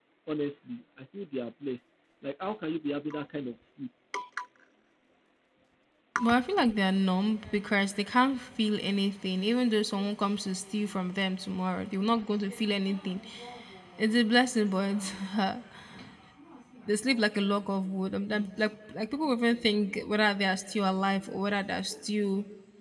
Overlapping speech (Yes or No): No